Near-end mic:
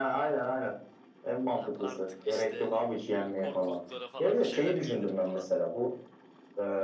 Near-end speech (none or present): present